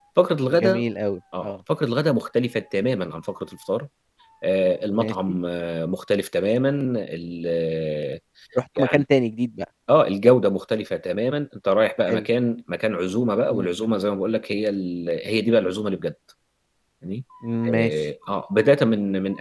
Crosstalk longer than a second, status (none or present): none